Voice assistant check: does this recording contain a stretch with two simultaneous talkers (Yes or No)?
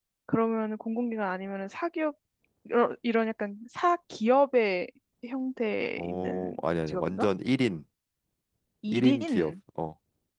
Yes